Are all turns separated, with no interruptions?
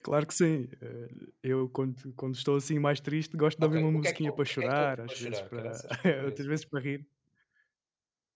No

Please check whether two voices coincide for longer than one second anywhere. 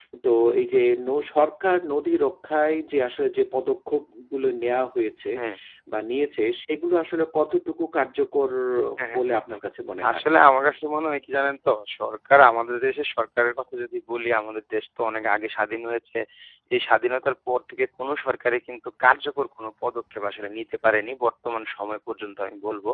No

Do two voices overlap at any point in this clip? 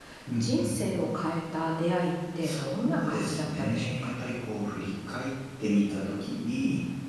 Yes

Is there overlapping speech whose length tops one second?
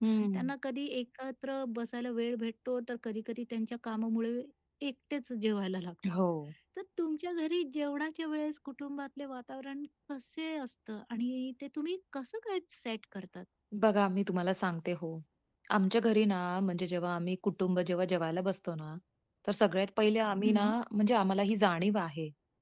No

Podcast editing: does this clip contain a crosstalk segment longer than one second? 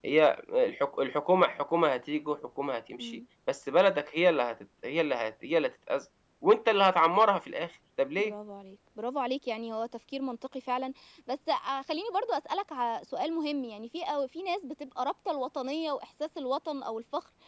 No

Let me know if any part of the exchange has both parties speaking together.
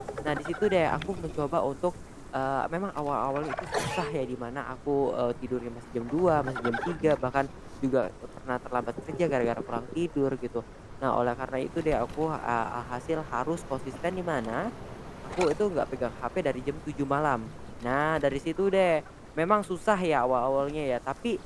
No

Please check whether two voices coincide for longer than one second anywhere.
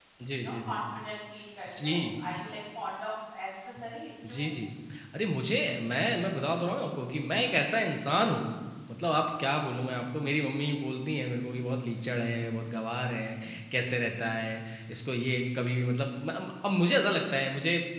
No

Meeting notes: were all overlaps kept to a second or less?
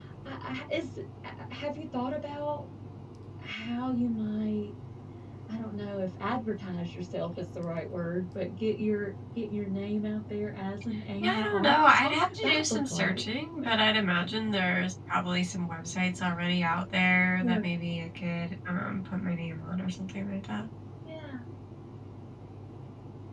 No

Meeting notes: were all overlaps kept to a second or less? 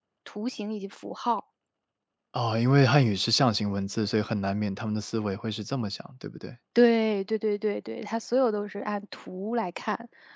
Yes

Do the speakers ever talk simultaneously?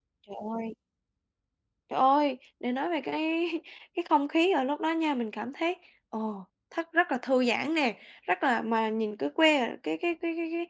No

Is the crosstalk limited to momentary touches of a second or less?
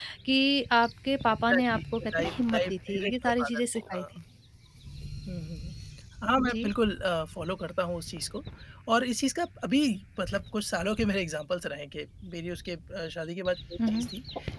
No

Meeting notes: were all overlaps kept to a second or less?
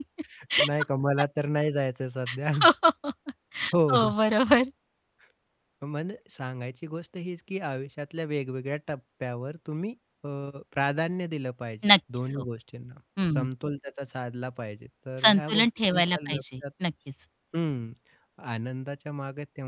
No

